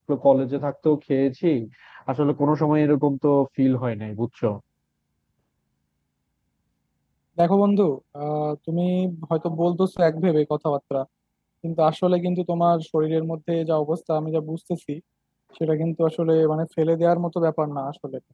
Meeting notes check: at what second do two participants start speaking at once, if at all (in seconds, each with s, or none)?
none